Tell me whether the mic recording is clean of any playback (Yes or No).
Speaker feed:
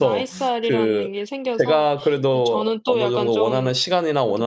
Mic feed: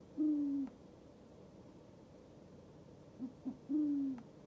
Yes